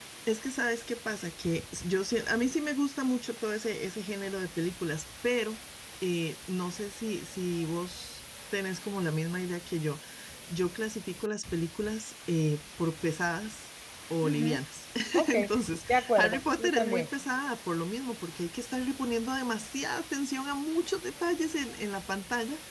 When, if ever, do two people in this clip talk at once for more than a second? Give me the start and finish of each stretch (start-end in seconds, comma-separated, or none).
15.9-17.1